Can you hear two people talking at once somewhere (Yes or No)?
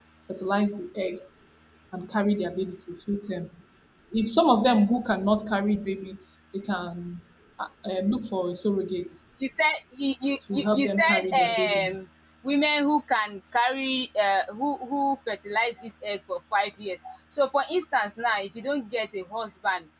Yes